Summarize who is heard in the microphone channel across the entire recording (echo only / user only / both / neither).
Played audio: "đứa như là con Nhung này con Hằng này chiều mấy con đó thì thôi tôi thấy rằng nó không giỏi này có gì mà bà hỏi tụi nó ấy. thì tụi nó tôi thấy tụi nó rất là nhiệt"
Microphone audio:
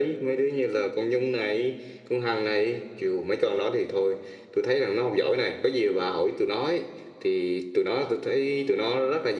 echo only